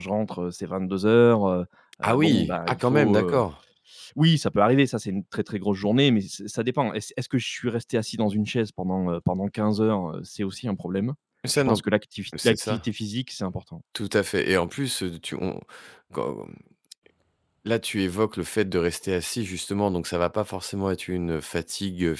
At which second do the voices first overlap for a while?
2.0 s

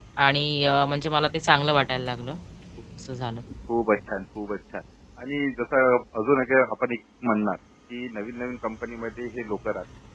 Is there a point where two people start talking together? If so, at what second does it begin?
none

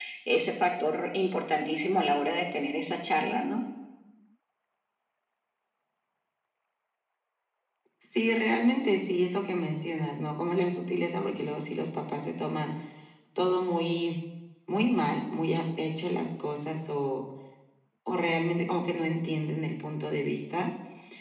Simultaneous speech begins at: none

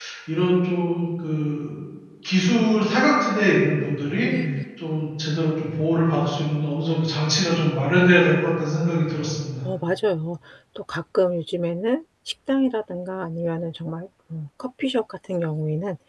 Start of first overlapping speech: none

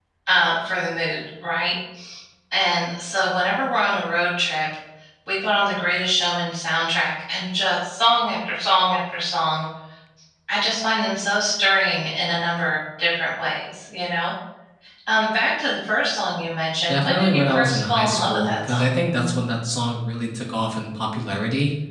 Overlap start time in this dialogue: 16.9 s

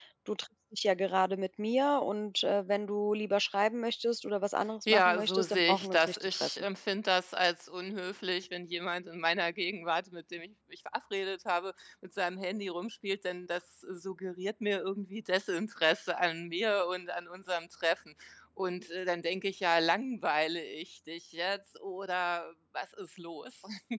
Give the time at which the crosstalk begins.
4.9 s

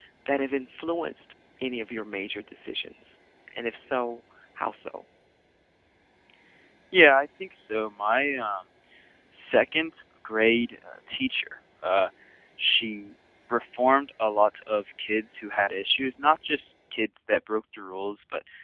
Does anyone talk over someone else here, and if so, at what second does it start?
none

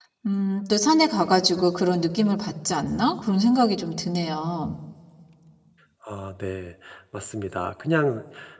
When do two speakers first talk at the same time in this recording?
none

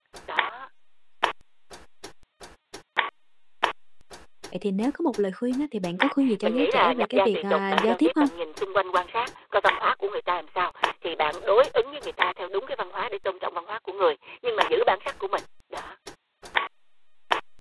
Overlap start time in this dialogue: 6.0 s

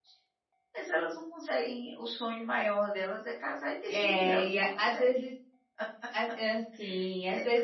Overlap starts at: 3.9 s

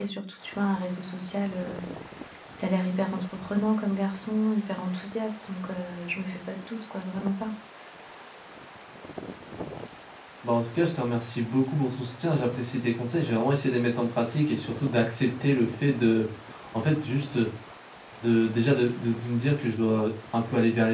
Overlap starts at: none

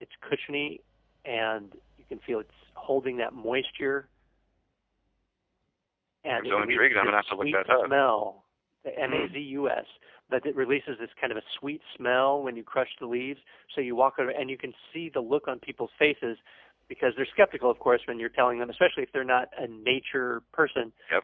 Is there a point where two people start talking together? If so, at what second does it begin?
6.4 s

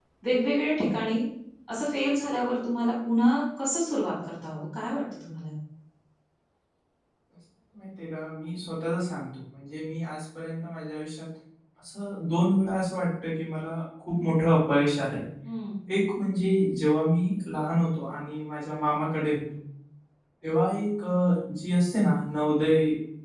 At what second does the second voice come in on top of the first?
none

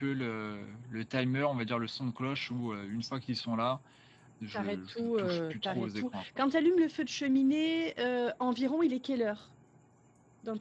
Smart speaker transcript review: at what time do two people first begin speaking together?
4.5 s

